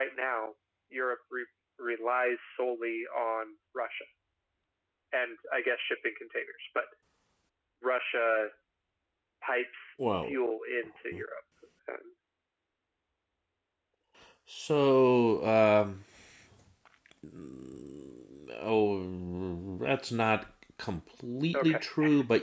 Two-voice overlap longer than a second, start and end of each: none

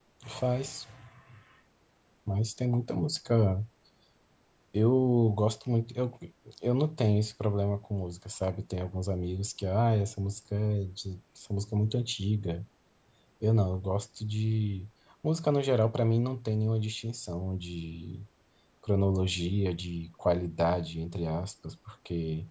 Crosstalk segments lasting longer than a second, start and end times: none

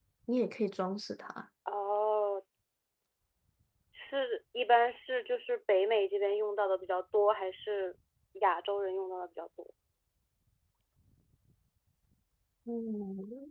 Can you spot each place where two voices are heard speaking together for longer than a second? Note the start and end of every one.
none

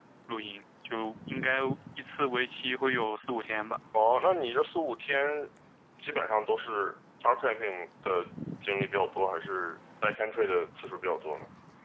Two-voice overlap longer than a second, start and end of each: none

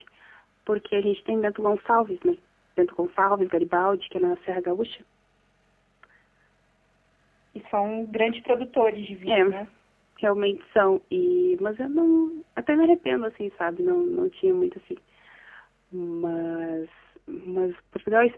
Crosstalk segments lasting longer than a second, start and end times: none

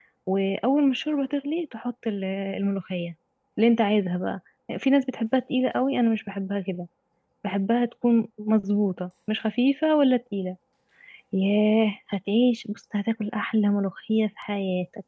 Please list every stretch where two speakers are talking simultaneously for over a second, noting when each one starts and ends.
none

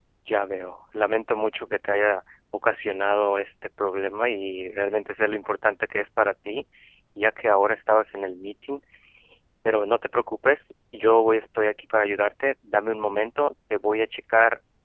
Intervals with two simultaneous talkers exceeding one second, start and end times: none

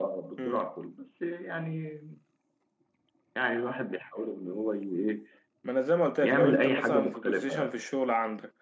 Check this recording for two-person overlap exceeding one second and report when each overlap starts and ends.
6.2-7.8

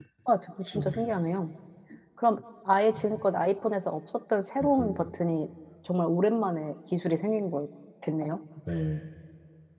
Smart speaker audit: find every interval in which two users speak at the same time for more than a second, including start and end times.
none

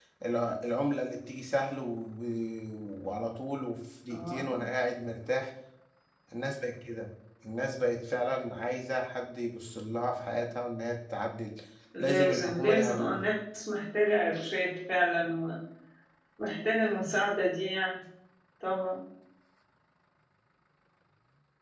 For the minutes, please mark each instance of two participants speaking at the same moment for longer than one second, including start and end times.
12.0-13.2

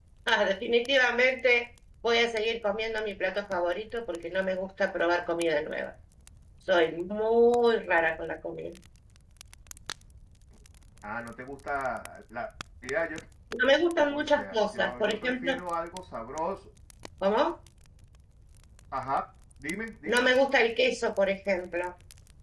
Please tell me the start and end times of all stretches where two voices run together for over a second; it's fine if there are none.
13.9-15.6

